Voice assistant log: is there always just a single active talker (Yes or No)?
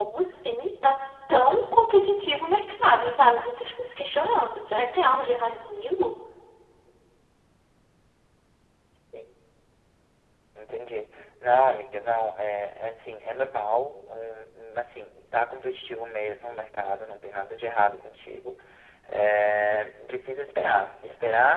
Yes